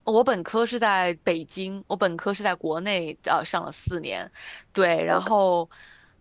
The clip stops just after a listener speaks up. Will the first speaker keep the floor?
Yes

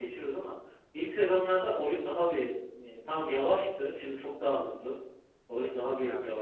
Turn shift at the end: No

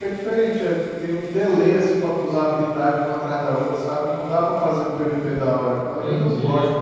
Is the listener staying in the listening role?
No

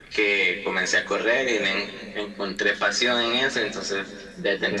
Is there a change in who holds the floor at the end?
No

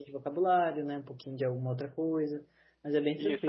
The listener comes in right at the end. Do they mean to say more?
Yes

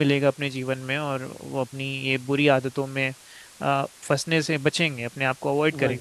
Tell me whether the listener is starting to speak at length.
Yes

